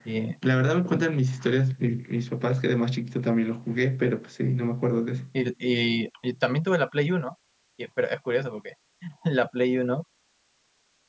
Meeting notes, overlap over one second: none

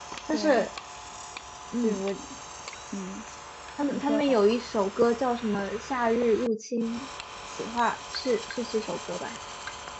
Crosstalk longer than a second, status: none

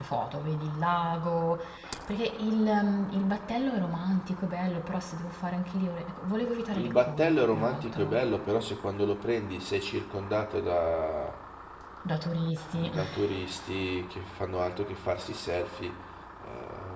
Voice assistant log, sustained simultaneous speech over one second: present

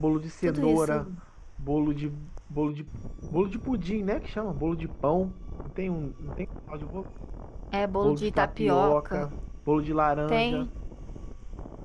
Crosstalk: present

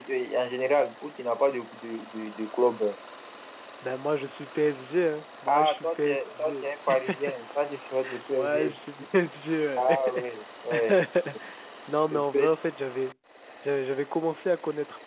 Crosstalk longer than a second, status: present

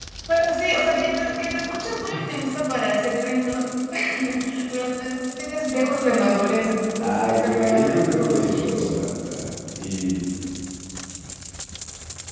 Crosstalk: present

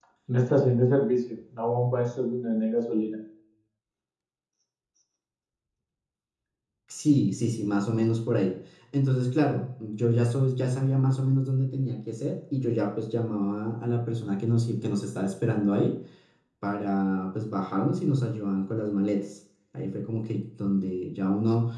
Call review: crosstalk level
none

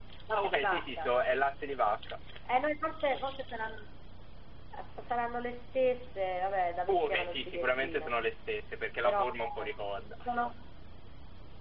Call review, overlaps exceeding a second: present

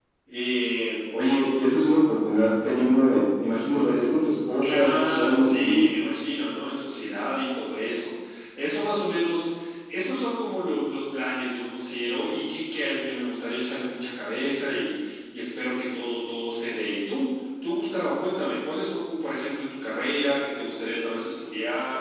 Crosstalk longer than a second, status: present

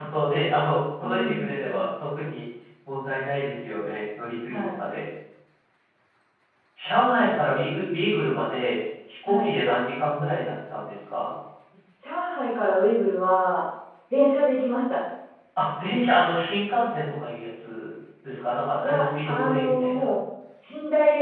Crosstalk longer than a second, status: present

